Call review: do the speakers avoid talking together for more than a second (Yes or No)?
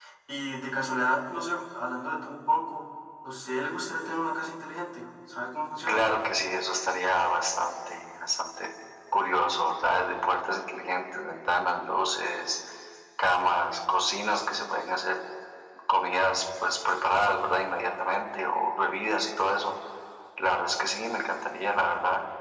Yes